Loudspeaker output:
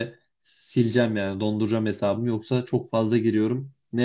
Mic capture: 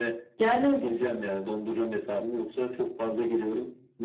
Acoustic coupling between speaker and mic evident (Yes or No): Yes